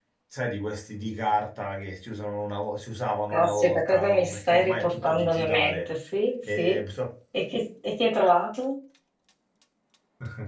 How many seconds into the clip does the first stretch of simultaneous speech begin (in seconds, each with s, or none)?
3.3 s